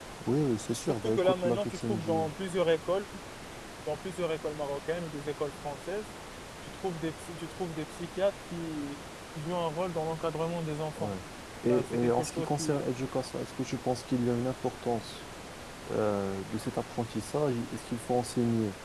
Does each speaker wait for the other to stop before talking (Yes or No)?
No